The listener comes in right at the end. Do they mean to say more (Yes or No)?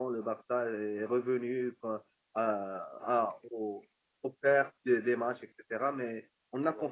No